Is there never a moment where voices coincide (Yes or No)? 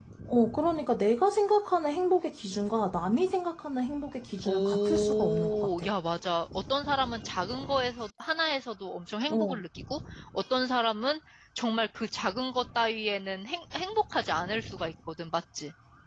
No